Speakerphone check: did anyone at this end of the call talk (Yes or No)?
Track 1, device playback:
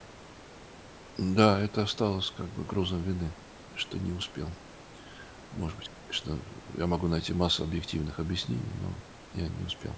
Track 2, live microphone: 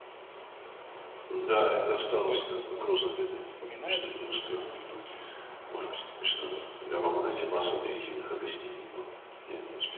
Yes